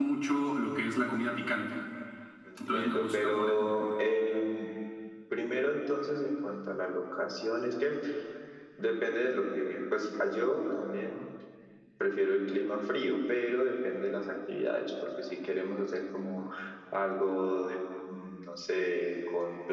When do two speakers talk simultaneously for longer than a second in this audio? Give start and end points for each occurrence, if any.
2.7-3.9

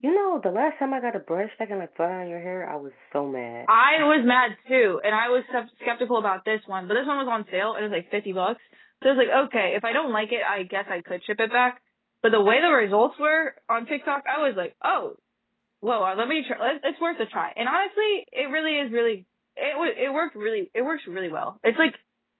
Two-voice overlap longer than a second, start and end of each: none

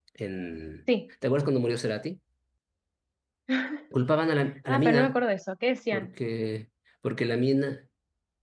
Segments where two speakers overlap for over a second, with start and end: none

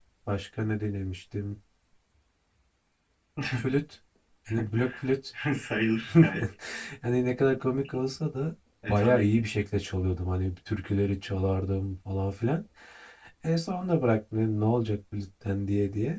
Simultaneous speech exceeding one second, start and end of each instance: none

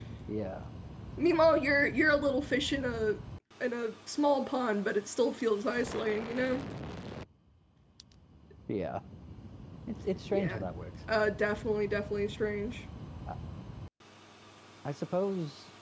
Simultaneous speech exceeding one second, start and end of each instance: none

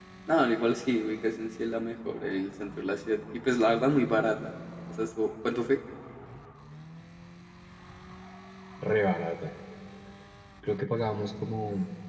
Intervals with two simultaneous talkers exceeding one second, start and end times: none

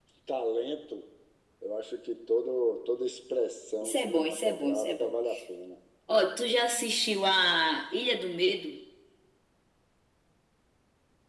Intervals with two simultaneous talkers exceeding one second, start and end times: 3.8-5.1

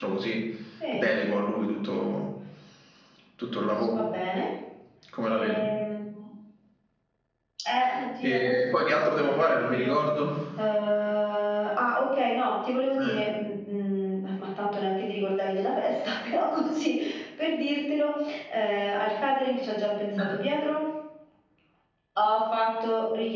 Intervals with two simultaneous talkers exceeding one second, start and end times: 8.2-10.0

